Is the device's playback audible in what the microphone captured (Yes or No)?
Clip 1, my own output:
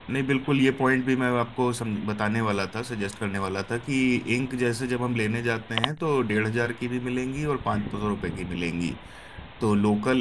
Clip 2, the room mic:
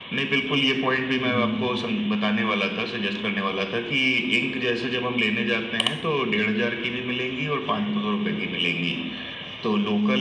Yes